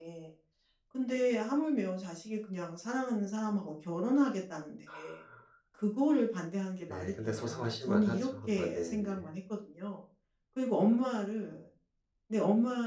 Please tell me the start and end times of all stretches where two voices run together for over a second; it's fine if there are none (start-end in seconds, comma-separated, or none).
6.9-9.3